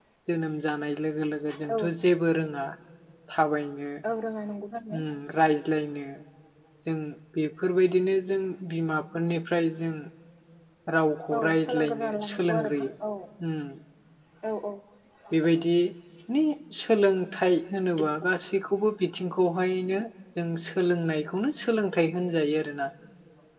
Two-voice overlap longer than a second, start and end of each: 11.3-12.9

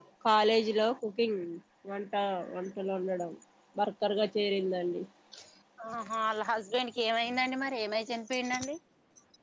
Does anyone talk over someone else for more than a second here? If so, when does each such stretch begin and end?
none

